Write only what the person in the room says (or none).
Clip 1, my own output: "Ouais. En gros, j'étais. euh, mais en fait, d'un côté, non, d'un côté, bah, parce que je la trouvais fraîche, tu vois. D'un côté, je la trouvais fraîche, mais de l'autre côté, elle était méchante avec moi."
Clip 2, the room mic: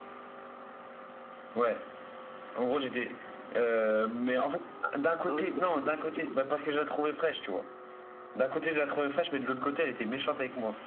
Non, vas-y, continue, continue, je t'écoute.